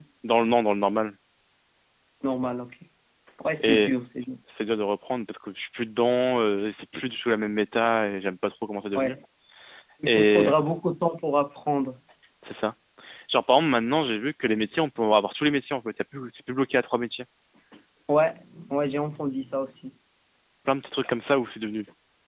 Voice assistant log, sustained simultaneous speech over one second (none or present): none